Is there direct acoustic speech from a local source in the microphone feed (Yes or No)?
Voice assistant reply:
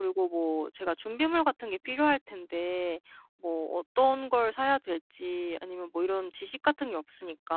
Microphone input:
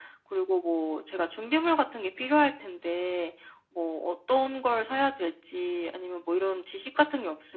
No